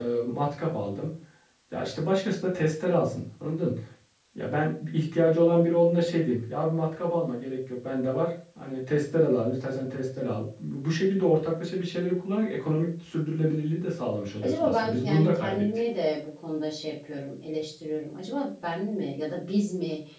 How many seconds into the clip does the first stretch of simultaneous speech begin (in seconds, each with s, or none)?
14.4 s